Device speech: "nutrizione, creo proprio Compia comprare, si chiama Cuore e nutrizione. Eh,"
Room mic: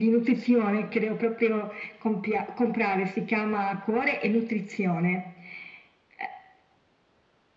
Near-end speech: none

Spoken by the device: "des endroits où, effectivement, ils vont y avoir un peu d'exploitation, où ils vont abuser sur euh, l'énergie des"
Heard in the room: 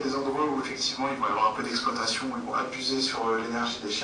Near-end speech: none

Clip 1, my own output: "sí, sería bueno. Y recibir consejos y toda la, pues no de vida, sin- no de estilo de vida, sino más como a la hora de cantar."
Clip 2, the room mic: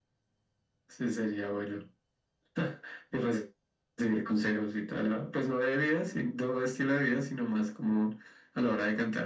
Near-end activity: none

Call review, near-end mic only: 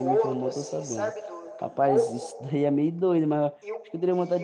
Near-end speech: present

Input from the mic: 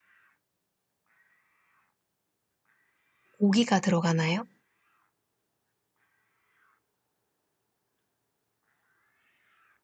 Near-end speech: present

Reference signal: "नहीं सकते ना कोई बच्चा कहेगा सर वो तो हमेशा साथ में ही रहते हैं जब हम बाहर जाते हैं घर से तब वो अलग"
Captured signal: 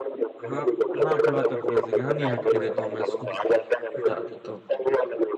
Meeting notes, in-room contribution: present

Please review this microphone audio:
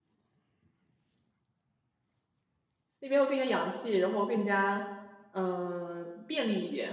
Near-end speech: present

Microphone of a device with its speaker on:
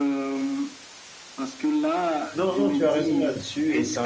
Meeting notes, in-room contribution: present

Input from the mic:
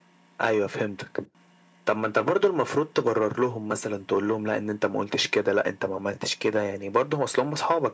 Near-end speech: none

